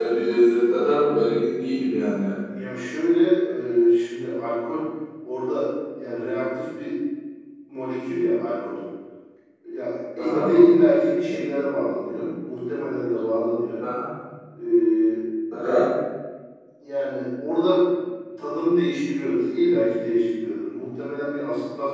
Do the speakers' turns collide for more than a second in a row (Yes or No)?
No